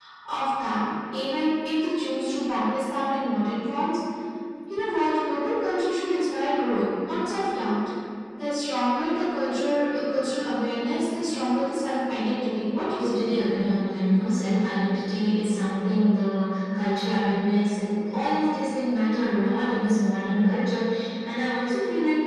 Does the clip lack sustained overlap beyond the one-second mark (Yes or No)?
Yes